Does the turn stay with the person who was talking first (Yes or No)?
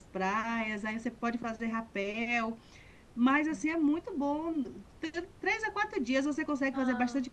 Yes